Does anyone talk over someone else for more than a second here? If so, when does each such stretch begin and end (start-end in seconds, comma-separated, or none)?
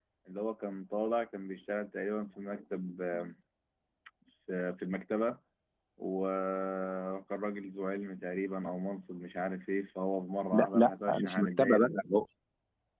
10.5-11.9